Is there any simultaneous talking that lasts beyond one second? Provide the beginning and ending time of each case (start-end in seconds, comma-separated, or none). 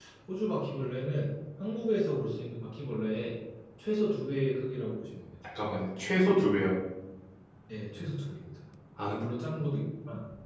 none